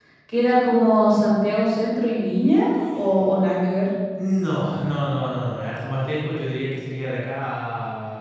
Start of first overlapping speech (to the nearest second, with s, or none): none